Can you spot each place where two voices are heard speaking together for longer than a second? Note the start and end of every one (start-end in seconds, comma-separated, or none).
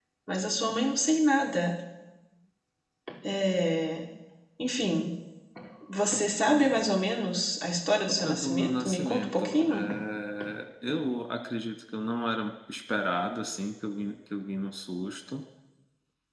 8.2-9.9